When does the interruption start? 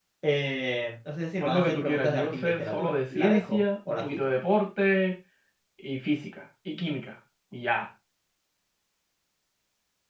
1.4 s

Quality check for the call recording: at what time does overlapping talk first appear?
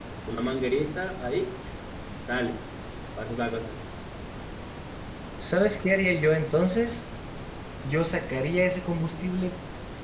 none

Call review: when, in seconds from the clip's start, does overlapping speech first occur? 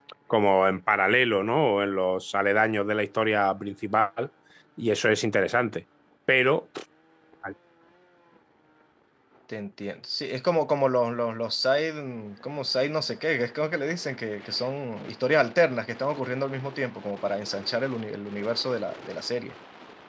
none

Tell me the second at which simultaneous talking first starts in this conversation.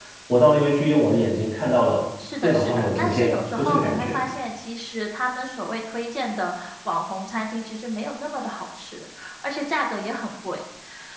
2.4 s

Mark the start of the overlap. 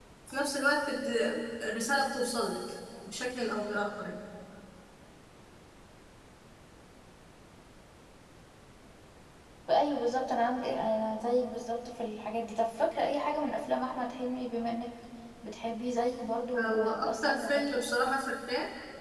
16.5 s

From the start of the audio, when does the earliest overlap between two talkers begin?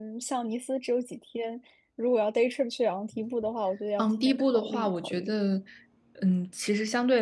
4.0 s

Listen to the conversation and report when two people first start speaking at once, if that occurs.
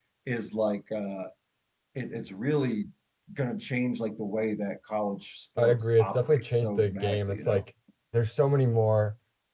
5.6 s

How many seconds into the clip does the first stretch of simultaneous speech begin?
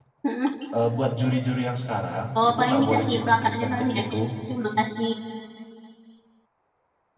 2.4 s

